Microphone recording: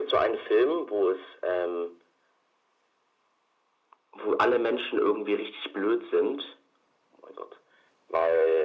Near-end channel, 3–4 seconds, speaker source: neither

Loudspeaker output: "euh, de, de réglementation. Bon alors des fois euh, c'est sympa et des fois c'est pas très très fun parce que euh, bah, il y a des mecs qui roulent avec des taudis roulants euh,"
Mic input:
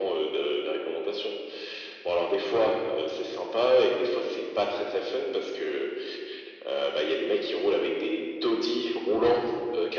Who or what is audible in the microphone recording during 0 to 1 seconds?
echo only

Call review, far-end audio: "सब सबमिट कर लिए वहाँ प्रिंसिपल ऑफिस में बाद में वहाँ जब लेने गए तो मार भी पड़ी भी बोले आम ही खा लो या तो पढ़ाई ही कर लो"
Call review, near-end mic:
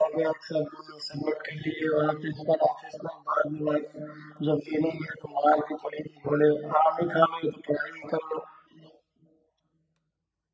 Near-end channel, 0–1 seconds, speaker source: echo only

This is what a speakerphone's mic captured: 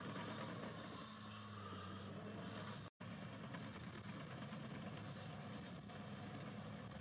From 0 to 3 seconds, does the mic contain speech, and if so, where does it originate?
neither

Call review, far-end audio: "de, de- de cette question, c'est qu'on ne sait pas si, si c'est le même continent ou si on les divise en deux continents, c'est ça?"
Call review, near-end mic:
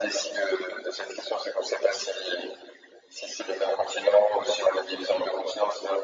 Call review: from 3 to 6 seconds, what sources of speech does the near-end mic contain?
echo only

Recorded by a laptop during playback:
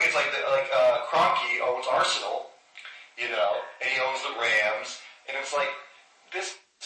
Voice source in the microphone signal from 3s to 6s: echo only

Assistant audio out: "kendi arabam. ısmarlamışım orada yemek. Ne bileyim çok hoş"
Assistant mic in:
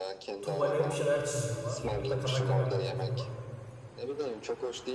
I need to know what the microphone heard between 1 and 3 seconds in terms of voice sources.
both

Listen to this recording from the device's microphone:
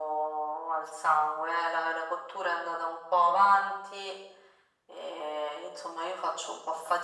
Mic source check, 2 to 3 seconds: echo only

